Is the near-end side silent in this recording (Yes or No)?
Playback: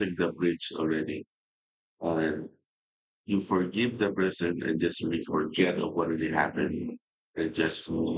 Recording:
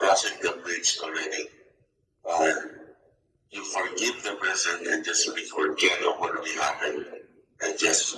Yes